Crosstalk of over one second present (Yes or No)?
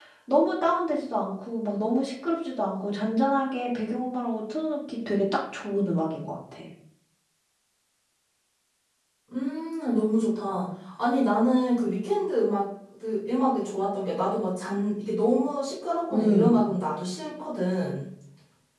No